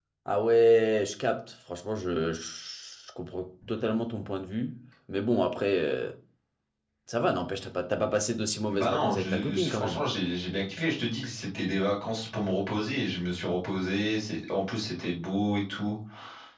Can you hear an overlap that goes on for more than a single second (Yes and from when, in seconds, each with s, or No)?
Yes, from 8.7 s